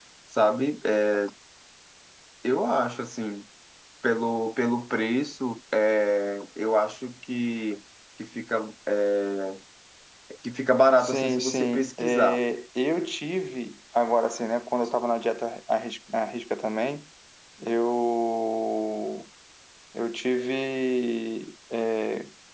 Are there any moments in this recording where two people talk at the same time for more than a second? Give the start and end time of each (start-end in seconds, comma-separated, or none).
11.0-12.4